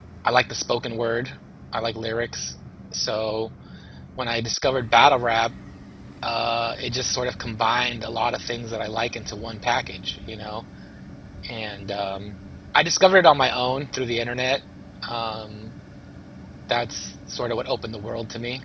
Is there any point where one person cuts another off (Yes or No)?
No